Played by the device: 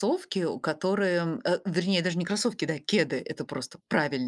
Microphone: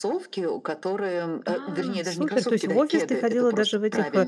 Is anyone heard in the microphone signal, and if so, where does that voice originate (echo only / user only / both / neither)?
both